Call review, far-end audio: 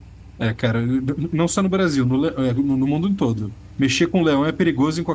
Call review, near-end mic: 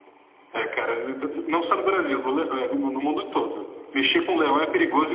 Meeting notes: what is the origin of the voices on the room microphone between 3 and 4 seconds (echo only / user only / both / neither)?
echo only